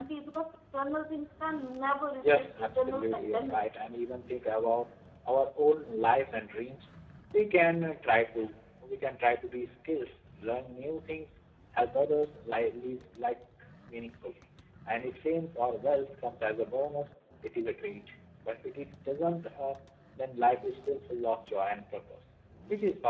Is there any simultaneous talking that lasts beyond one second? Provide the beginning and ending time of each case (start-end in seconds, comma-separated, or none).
2.2-3.6